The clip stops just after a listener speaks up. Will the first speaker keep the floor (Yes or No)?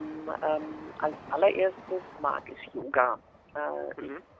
Yes